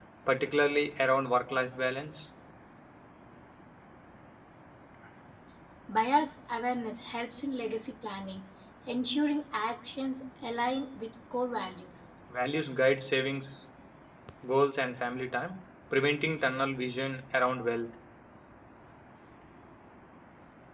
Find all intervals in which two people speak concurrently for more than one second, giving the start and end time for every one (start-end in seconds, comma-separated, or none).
none